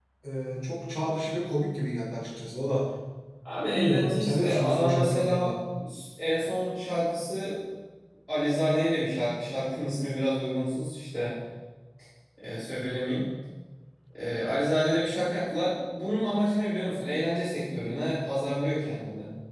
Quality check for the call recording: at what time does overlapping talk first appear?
4 s

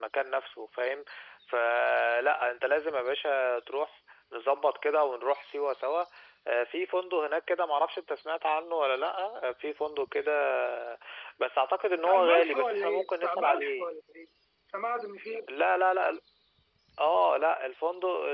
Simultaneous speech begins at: 12 s

